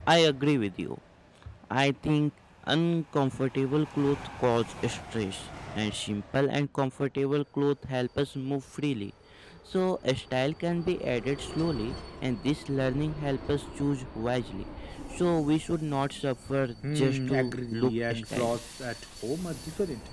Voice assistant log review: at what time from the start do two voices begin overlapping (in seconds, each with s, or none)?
16.8 s